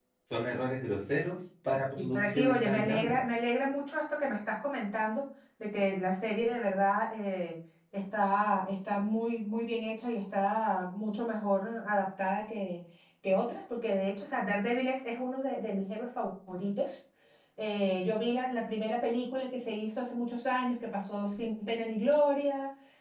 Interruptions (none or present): present